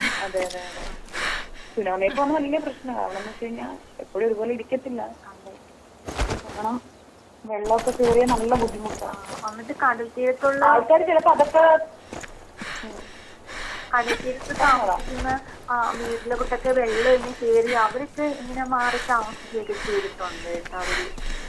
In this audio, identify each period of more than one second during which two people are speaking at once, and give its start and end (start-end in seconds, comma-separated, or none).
none